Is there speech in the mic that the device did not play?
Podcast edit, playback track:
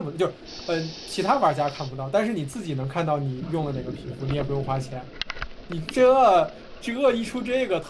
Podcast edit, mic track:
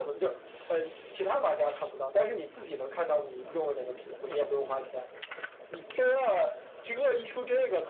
No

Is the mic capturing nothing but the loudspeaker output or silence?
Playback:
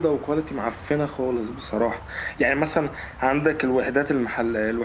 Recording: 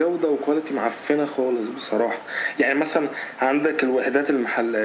Yes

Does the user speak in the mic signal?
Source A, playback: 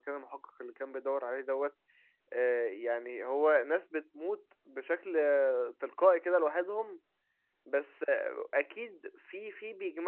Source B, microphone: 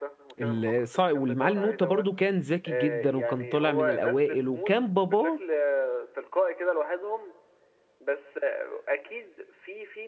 Yes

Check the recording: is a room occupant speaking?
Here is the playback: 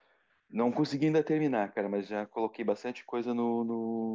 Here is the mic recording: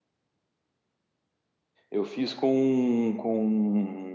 Yes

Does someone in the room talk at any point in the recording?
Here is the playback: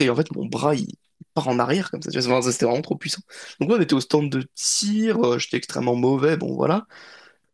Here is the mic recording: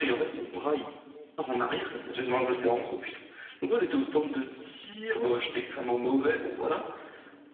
No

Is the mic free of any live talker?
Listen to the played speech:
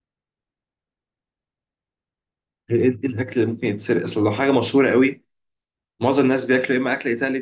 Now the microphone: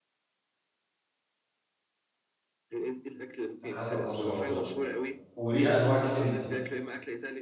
No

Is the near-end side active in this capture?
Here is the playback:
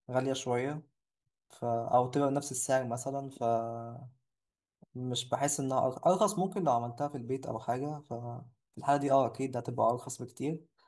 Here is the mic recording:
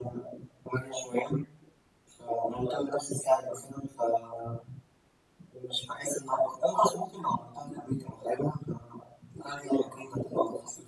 No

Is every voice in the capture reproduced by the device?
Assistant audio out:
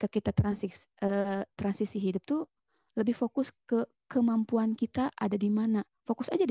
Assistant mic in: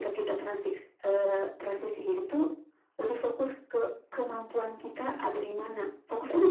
Yes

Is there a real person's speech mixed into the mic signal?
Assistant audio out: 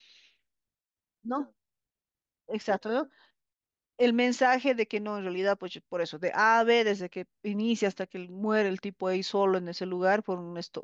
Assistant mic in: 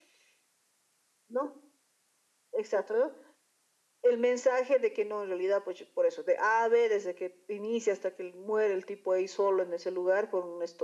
No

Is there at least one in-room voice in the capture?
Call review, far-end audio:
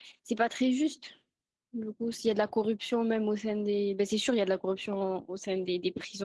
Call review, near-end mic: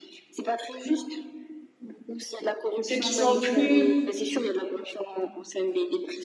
Yes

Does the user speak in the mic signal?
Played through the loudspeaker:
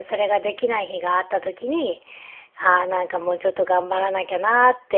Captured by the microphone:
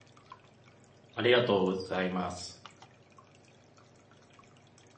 Yes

